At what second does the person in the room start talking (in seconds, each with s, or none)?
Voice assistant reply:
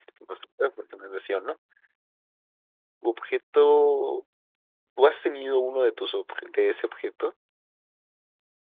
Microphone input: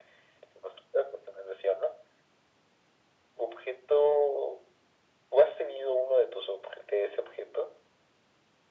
none